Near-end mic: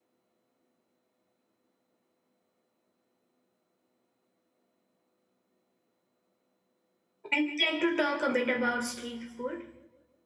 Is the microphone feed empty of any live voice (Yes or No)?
No